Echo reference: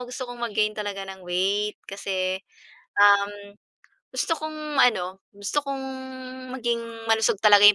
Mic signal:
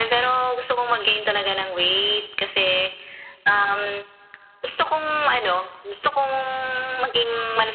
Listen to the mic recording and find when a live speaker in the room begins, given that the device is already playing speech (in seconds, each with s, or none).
none